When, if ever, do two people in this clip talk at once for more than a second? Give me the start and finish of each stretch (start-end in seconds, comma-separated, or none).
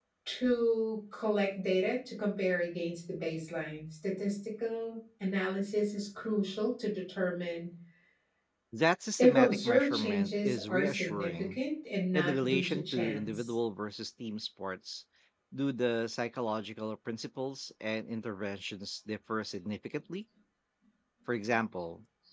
9.2-11.6, 12.1-13.5